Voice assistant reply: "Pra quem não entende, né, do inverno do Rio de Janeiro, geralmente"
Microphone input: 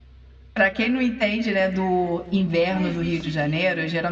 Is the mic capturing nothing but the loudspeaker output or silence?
No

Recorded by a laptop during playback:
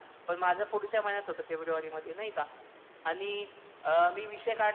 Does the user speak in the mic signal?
No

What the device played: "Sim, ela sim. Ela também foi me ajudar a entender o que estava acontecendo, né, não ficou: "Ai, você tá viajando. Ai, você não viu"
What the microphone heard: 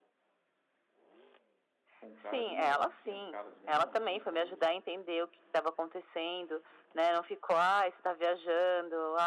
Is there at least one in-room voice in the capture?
Yes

